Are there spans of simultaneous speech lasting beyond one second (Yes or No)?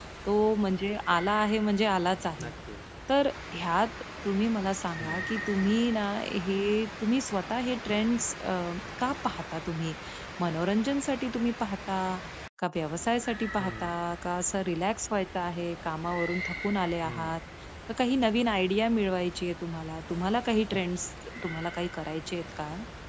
No